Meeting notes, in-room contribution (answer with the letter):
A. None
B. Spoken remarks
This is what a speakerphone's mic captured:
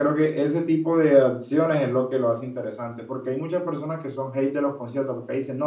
A